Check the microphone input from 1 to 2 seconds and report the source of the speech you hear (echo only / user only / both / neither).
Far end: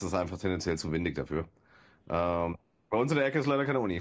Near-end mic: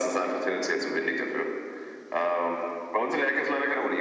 echo only